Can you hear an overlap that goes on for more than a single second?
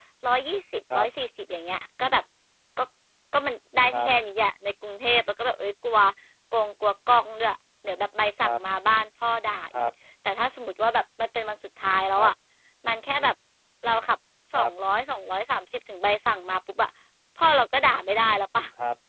No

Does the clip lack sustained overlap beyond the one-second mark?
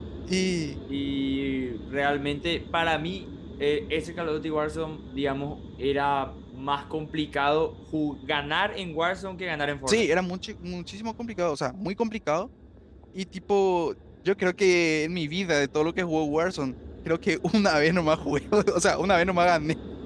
Yes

